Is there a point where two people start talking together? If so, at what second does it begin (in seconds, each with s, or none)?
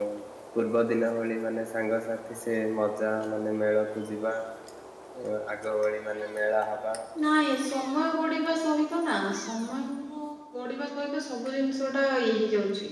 none